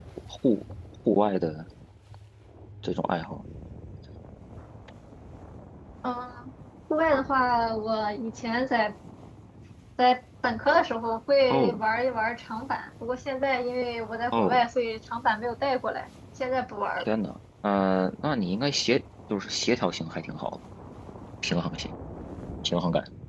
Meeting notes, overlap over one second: none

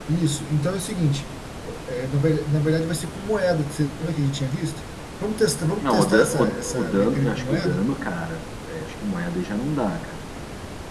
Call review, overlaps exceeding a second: present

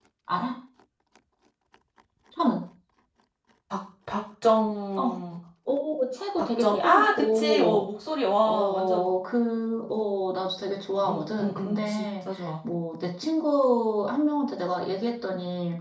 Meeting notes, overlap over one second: present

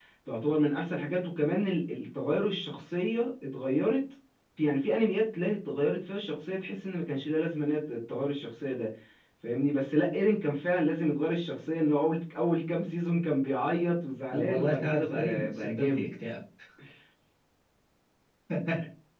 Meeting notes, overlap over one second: present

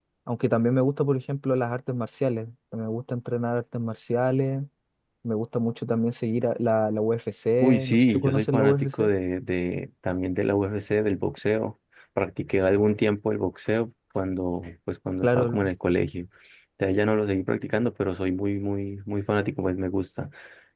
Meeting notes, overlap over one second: present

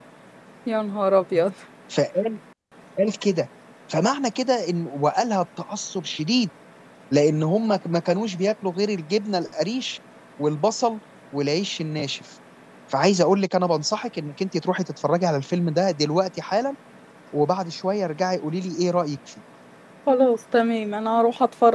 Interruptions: none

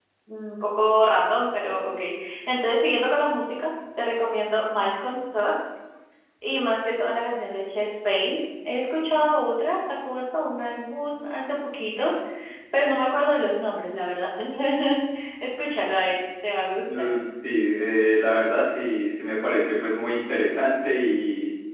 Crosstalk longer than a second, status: none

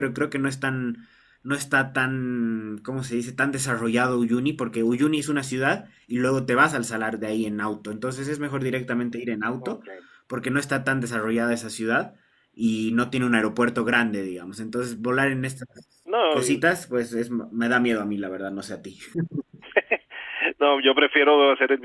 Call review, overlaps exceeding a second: none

